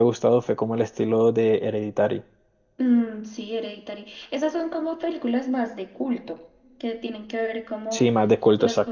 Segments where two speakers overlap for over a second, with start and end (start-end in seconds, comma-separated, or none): none